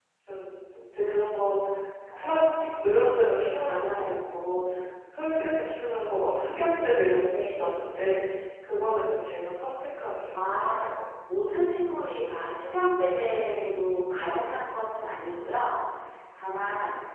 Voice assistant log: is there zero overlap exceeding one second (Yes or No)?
Yes